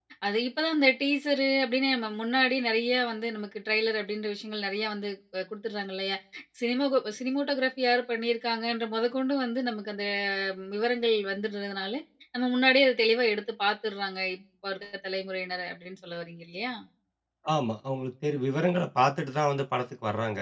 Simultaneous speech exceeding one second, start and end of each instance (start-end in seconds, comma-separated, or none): none